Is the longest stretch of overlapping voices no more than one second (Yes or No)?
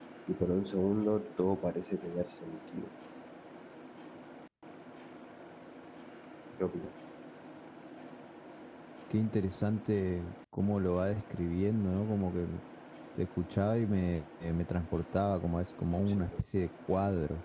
Yes